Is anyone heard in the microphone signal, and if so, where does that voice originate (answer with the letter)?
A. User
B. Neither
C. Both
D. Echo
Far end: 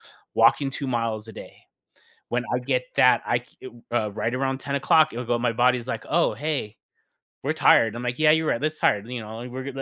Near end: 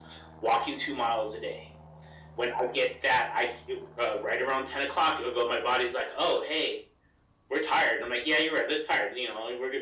D